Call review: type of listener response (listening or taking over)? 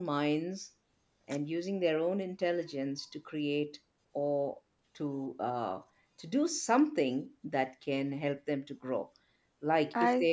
listening